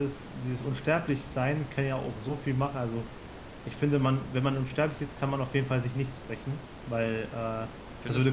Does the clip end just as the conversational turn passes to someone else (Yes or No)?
No